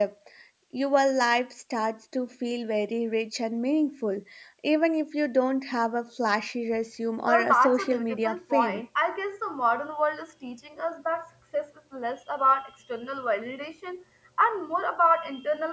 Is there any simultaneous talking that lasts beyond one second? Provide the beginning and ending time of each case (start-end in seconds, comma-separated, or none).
7.3-8.8